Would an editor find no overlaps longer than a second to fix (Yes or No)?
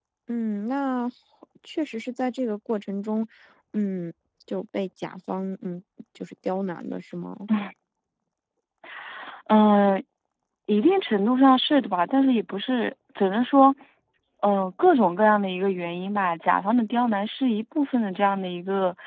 Yes